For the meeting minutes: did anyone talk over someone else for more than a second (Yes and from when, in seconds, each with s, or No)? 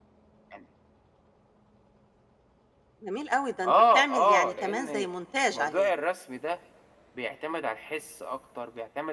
Yes, from 3.6 s